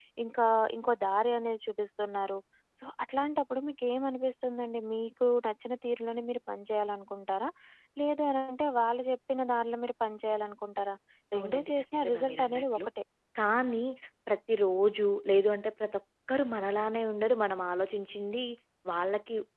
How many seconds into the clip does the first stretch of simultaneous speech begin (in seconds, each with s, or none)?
11.4 s